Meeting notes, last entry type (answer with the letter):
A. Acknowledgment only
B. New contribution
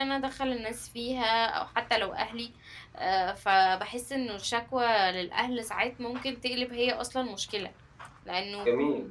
A